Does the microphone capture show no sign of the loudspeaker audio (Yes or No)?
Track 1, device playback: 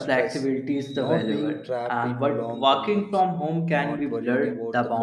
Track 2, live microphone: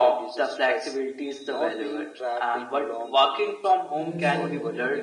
No